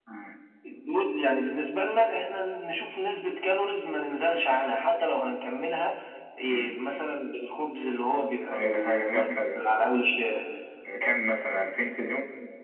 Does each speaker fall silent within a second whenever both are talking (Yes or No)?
No